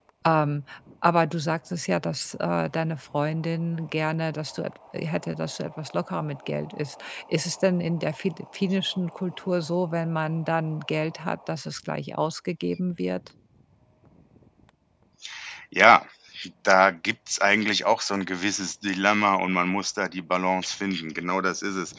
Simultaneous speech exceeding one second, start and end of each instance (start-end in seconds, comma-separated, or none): none